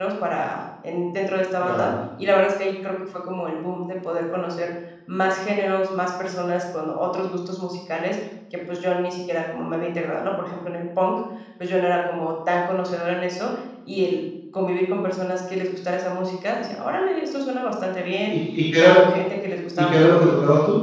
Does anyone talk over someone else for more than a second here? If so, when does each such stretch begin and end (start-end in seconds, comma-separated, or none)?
none